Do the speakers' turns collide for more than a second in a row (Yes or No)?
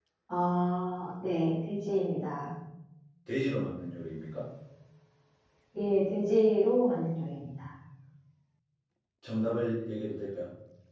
No